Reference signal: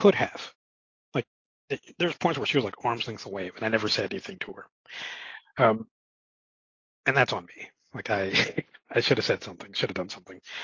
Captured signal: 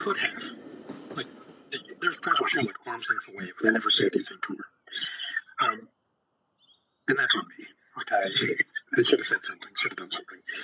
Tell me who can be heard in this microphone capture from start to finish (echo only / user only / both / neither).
echo only